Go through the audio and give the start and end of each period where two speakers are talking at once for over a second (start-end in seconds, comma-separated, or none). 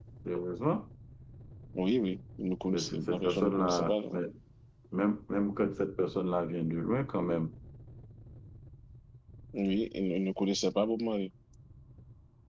2.7-4.2